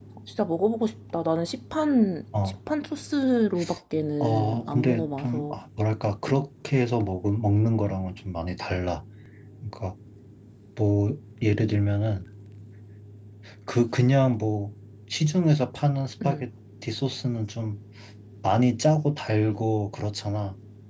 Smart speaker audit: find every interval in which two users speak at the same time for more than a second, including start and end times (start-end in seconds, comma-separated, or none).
4.2-5.6